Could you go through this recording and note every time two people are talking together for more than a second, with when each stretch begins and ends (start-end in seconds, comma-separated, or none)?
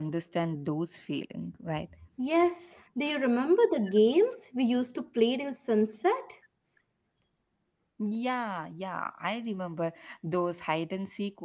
none